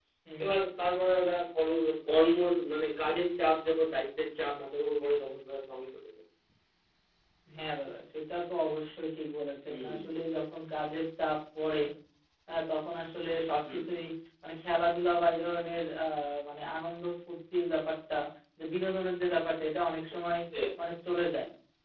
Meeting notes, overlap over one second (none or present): none